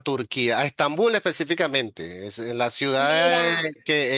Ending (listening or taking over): listening